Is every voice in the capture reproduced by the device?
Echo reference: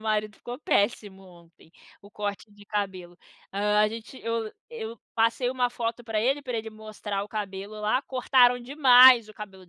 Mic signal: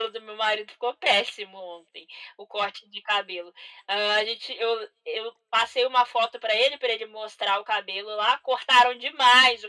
Yes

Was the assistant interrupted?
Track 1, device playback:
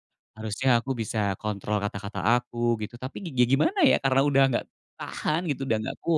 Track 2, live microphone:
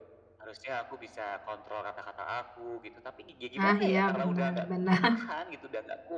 Yes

